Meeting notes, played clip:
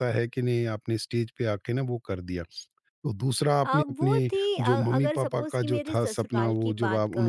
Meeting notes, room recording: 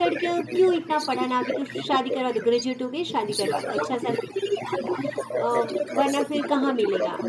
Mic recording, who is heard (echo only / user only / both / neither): both